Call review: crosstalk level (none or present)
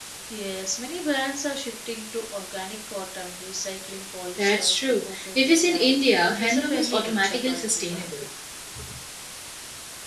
present